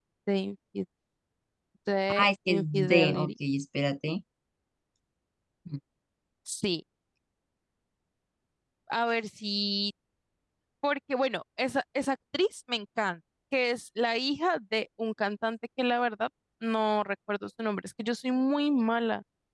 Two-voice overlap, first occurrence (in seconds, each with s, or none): 2.1 s